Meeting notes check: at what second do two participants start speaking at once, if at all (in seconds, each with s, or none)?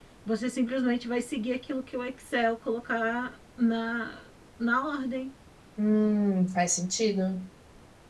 none